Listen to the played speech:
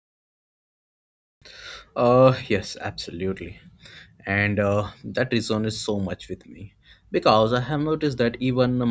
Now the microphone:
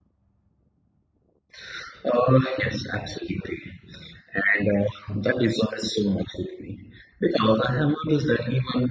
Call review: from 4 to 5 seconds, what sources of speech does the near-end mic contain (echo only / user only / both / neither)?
echo only